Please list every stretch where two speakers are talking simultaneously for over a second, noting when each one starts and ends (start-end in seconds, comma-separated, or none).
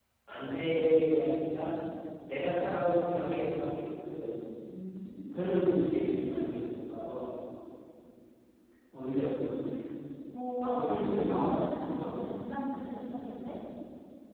10.6-12.1